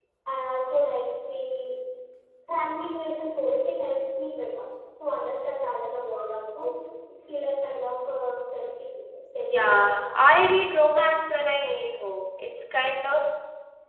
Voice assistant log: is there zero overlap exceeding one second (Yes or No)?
No